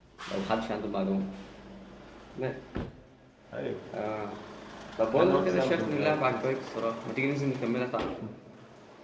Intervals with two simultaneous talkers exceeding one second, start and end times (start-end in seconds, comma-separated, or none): 5.1-6.4